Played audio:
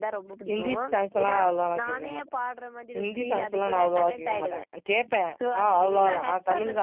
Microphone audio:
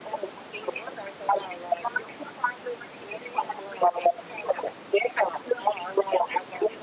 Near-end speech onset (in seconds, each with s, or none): none